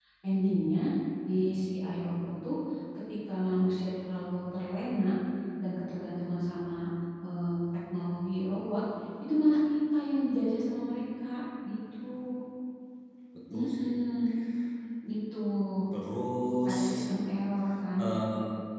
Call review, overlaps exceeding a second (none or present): none